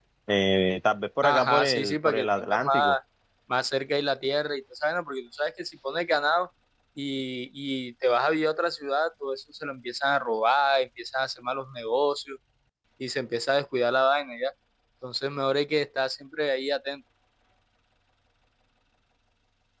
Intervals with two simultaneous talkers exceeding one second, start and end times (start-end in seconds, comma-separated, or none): 1.2-3.0